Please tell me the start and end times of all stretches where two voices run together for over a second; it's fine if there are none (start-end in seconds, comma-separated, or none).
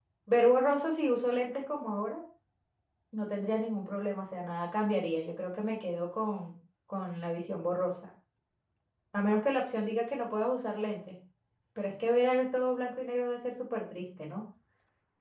none